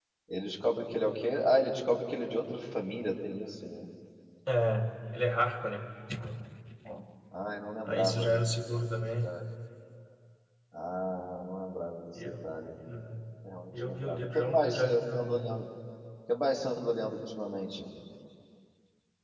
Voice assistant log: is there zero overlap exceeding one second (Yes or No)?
No